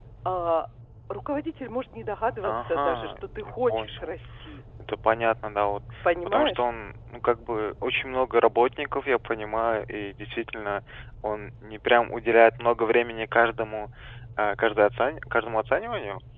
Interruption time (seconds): 2.4 s

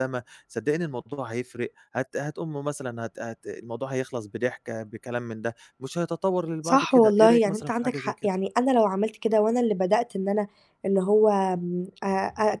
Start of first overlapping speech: 6.6 s

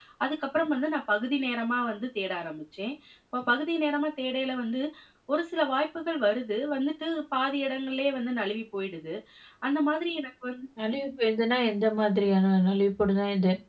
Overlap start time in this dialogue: none

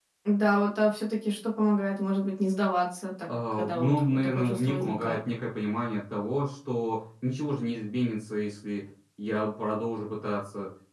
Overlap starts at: 3.2 s

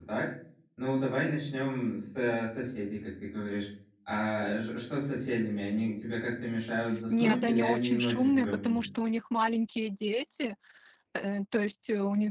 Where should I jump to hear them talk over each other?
7.1 s

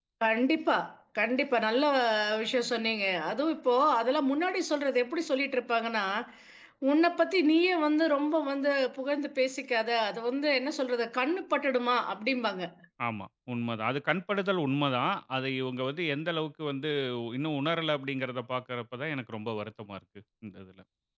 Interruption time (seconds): none

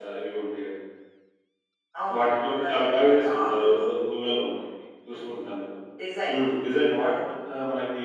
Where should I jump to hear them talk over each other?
2.1 s

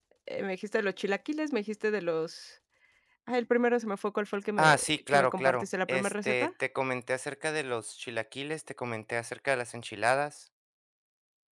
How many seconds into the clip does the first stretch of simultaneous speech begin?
4.6 s

